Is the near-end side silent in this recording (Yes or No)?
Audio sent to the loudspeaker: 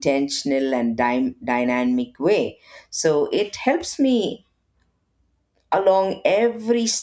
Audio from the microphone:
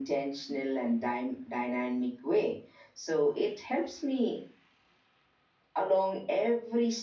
Yes